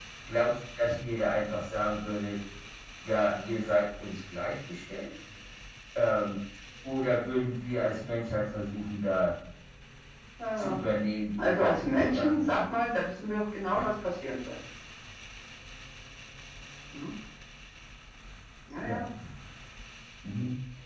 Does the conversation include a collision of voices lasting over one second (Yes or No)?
Yes